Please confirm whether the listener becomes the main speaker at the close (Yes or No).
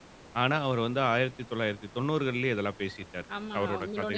Yes